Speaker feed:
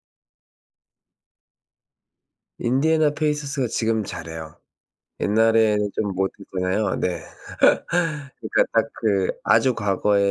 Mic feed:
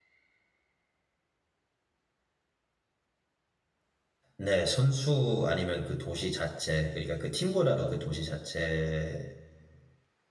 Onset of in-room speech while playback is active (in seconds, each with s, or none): 4.4 s